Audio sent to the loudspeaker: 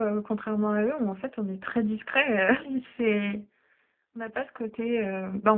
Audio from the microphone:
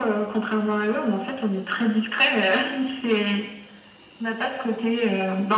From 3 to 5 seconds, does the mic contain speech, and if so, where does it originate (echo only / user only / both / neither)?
echo only